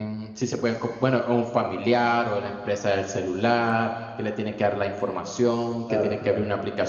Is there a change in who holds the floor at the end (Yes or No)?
No